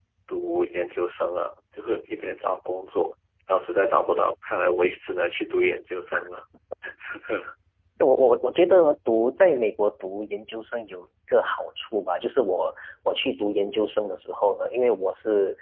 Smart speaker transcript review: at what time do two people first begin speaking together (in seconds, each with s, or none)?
none